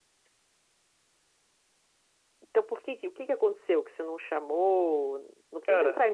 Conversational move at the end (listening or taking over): listening